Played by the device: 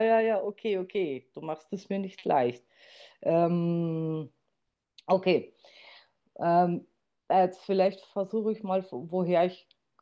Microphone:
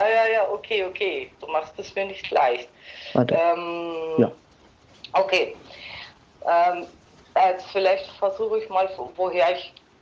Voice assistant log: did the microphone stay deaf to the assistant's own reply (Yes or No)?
No